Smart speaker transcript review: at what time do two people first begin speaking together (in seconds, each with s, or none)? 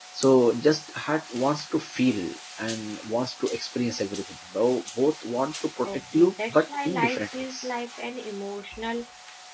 5.8 s